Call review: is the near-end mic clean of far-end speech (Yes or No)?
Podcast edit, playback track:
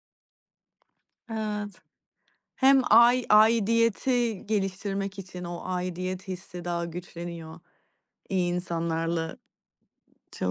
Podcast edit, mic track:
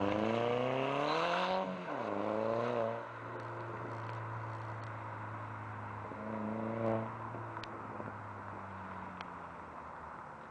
Yes